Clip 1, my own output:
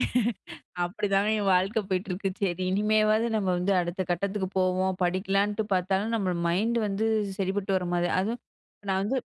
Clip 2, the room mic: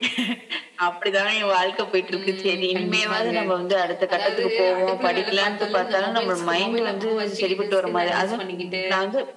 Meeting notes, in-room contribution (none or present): present